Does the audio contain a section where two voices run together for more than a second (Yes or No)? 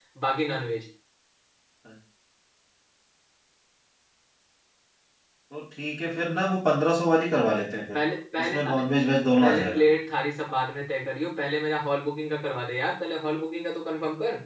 No